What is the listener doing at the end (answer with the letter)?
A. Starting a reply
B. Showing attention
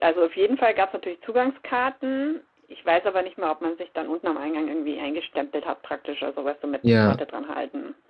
B